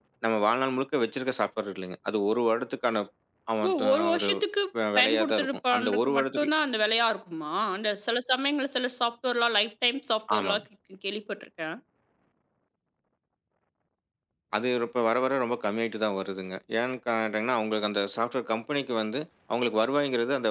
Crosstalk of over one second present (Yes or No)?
Yes